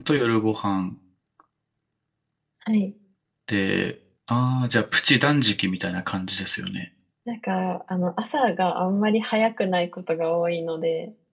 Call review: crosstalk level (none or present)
none